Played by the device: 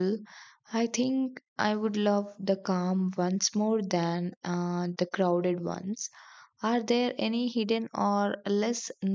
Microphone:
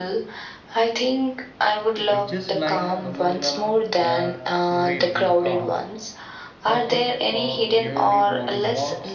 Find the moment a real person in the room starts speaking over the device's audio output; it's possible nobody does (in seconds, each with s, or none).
2.0 s